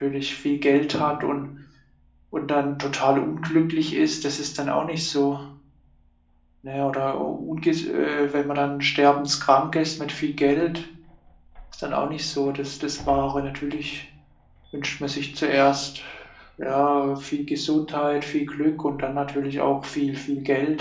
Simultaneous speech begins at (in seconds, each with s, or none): none